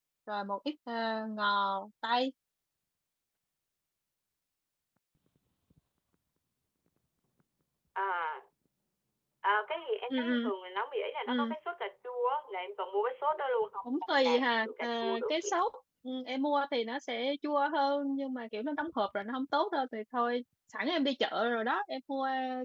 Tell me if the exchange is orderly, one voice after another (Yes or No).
No